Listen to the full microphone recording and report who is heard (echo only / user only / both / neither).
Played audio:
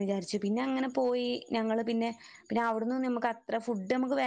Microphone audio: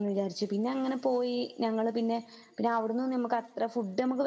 echo only